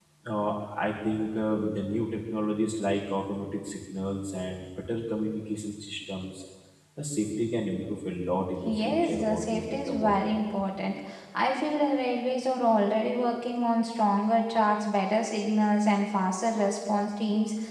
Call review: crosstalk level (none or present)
present